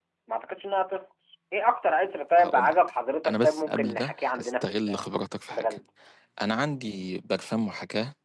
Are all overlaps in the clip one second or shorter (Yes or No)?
No